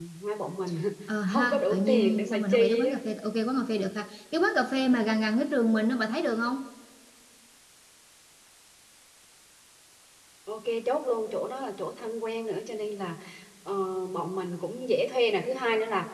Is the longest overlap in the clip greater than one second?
Yes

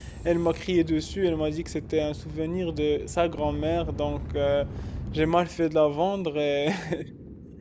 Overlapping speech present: No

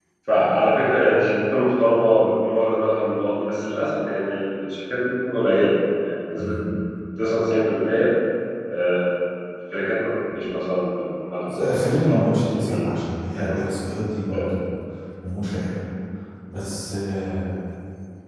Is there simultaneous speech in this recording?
Yes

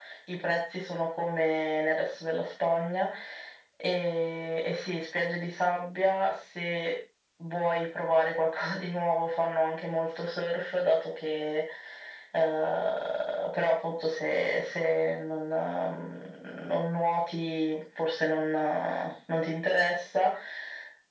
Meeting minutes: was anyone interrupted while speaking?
No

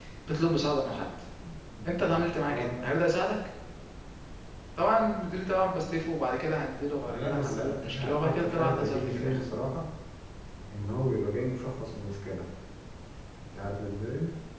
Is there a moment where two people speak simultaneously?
Yes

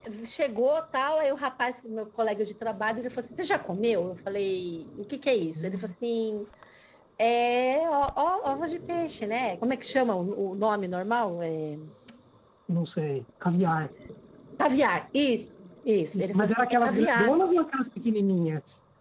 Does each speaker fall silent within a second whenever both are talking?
No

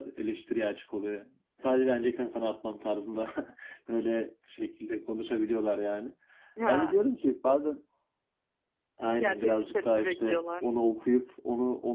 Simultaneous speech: Yes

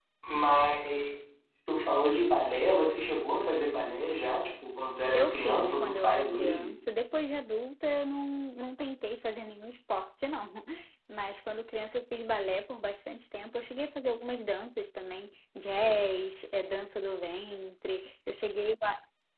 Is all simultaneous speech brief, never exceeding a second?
No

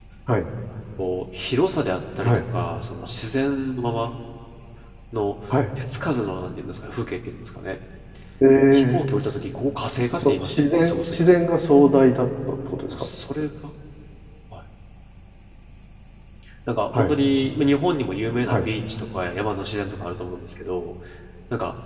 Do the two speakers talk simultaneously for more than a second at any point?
Yes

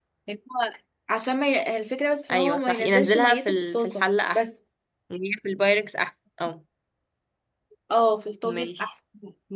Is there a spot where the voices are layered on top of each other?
Yes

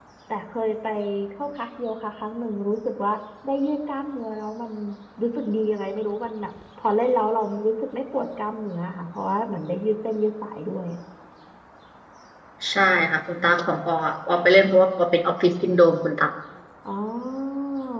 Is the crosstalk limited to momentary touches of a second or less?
Yes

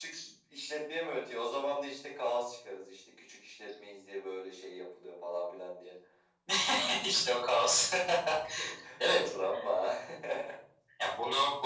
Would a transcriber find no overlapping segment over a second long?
Yes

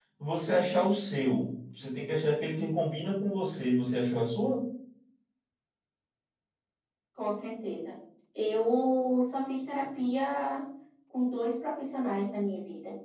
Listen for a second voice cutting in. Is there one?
No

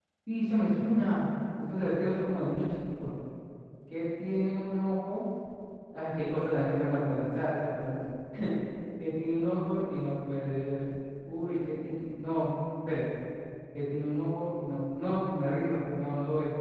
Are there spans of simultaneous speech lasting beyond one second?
No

